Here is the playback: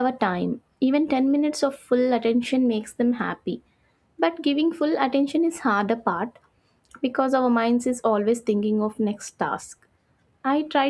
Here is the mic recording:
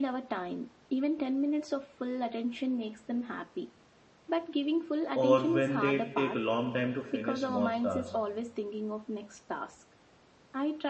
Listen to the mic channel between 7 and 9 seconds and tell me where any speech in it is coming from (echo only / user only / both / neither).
both